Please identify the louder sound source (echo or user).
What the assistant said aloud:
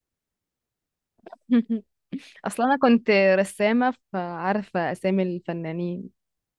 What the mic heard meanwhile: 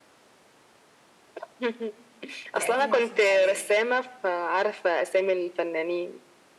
echo